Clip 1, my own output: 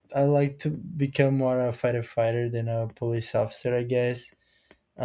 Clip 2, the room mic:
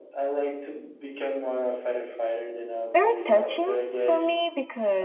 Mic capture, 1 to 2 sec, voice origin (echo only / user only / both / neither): echo only